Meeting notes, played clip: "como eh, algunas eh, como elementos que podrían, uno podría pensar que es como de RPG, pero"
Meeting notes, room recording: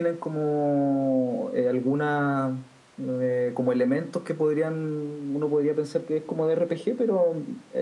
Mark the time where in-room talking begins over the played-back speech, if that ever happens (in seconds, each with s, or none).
none